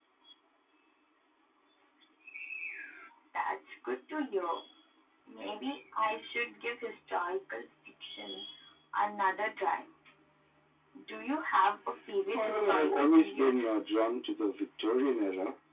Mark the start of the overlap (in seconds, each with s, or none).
12.3 s